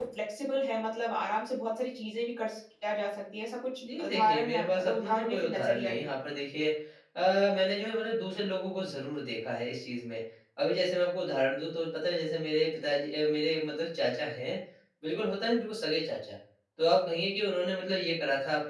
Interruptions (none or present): present